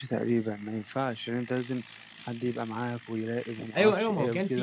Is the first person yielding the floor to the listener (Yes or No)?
Yes